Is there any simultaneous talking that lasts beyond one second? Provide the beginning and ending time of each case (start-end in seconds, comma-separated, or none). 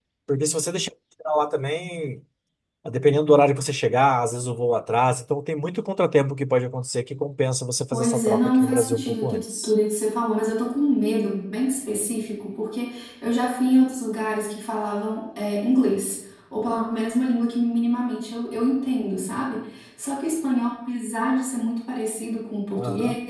7.9-9.7